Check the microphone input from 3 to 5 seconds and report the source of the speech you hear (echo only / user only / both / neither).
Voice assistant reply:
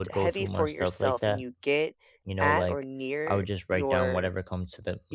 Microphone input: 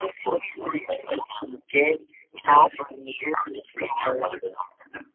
echo only